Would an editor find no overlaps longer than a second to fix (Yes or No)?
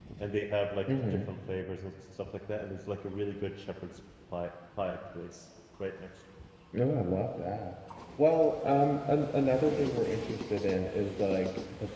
Yes